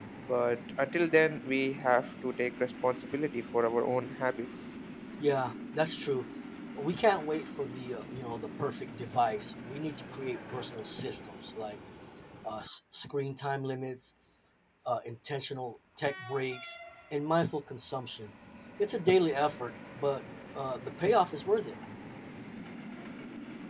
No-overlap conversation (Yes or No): Yes